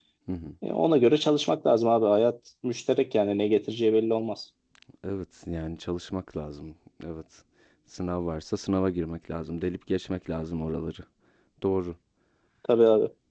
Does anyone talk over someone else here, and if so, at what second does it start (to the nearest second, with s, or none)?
none